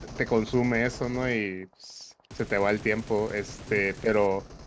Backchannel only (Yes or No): Yes